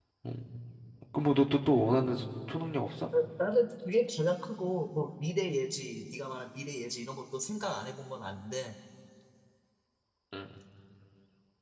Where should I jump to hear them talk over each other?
none

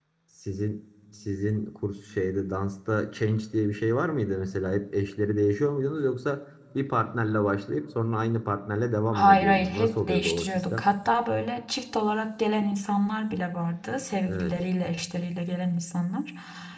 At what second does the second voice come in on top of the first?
9.1 s

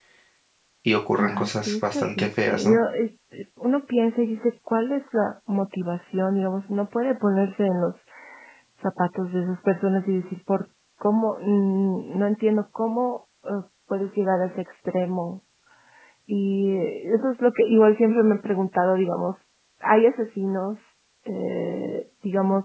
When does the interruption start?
1.2 s

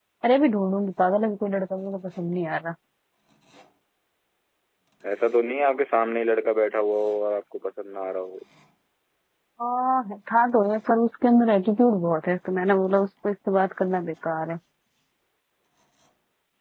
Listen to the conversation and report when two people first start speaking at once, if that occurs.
none

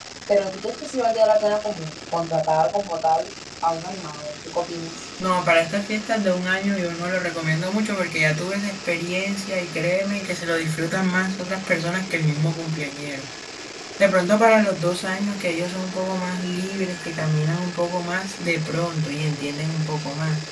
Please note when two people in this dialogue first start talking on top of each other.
none

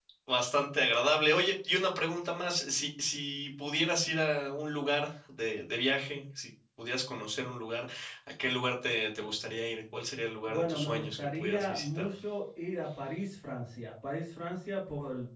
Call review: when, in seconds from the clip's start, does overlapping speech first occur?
10.4 s

